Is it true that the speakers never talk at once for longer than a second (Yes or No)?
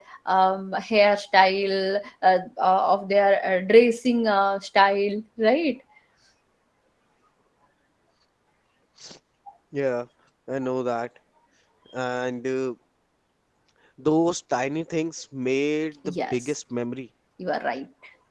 Yes